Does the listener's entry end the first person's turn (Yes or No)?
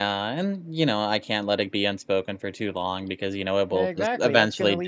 Yes